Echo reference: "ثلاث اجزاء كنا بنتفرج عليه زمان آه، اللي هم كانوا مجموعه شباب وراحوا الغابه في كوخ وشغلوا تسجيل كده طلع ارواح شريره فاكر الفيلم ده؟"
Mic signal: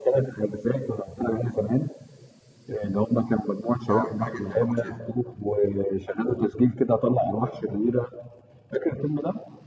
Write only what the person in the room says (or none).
اه بحبها جدا بموت فيها